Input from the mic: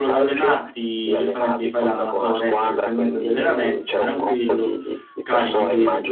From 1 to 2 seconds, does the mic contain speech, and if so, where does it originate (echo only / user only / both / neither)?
both